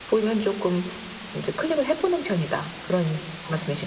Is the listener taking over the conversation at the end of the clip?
Yes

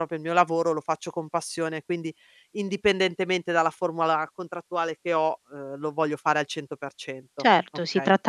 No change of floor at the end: No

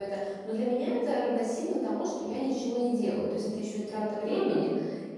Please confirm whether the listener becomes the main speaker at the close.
No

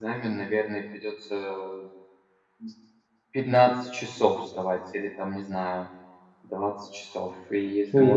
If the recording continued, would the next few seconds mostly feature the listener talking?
Yes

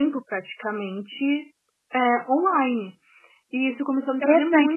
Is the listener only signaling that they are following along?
No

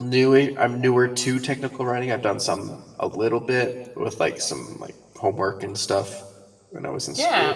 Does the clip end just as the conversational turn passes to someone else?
Yes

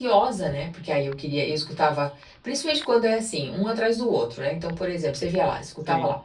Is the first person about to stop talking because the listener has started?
No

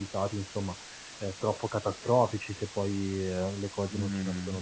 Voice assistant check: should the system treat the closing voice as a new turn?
Yes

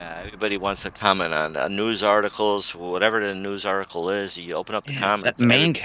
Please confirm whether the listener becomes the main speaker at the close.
Yes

